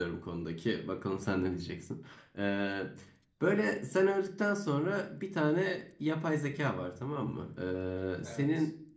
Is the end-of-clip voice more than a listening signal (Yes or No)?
No